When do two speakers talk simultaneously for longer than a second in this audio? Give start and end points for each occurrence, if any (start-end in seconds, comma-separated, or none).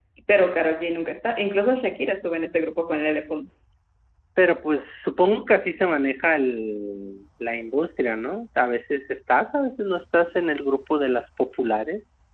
none